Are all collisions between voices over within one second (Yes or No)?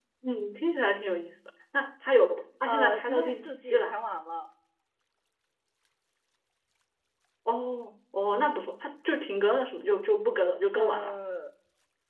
No